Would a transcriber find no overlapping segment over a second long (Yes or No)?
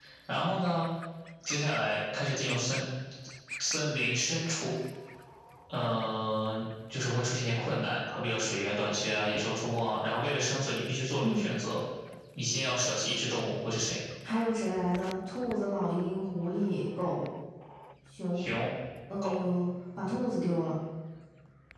Yes